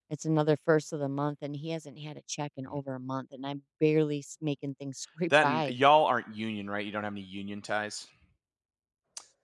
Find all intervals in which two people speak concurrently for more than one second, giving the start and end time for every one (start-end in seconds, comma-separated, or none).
none